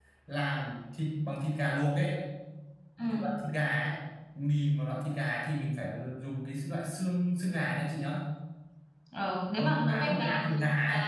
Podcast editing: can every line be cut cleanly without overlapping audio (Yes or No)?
No